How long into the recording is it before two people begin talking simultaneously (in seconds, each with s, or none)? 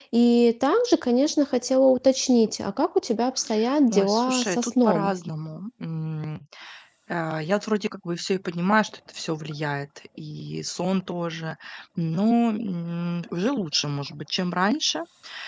3.9 s